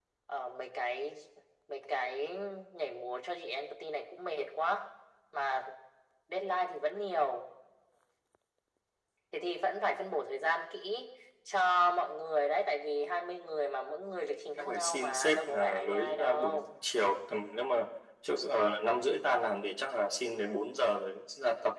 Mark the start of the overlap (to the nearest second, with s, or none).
15 s